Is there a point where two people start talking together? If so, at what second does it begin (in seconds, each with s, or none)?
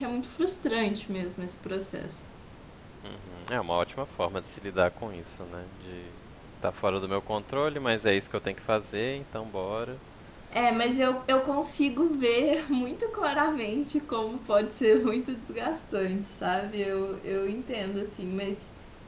none